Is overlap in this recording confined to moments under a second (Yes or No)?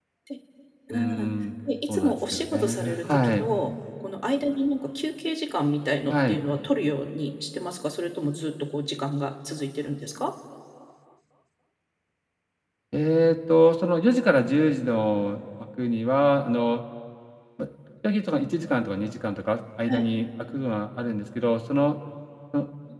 No